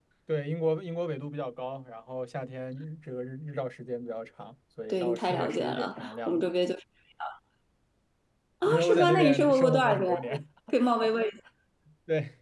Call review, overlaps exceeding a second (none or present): present